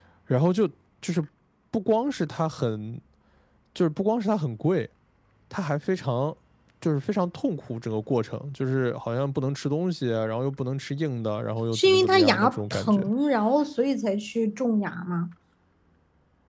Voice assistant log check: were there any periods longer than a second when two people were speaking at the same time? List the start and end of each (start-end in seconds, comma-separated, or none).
11.7-13.0